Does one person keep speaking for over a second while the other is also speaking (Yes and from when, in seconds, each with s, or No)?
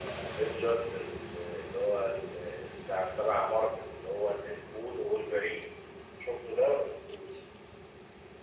No